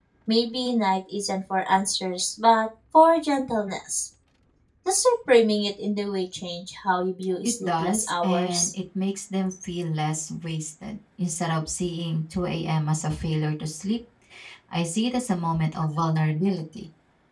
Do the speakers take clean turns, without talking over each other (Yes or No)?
No